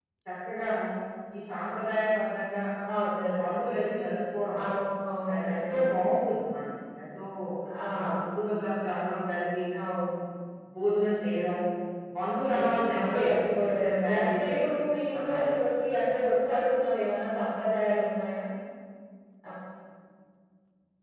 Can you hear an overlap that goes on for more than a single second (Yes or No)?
Yes